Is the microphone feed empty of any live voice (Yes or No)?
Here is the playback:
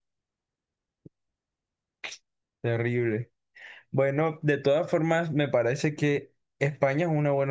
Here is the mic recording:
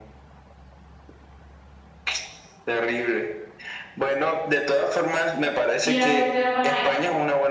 No